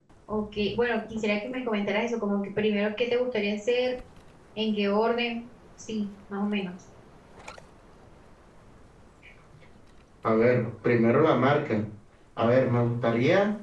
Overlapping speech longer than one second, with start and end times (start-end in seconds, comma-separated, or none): none